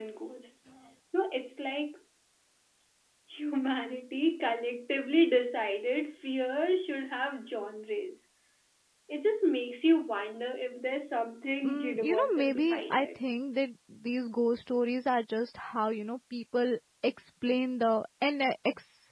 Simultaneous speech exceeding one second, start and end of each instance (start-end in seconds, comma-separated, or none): 11.6-13.2